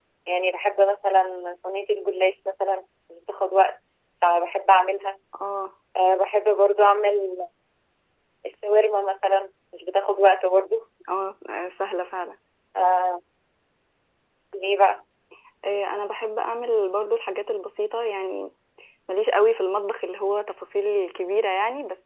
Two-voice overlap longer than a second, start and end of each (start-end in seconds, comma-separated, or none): none